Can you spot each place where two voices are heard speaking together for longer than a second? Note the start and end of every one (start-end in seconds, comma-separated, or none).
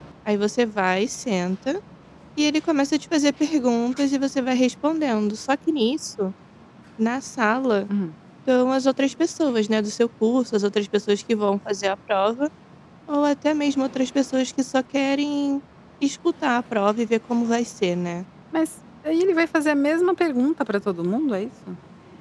none